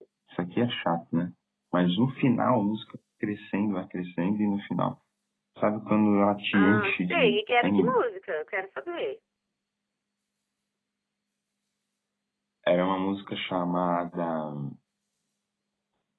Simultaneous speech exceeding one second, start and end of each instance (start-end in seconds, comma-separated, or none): 6.5-8.0